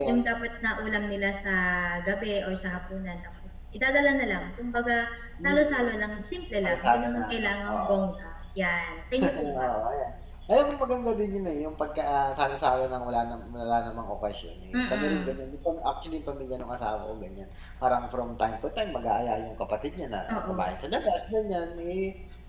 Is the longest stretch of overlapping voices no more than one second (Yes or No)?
No